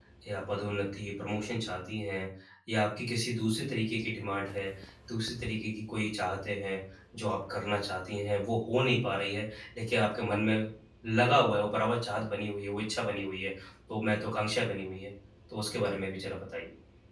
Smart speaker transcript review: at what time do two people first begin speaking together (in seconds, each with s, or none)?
none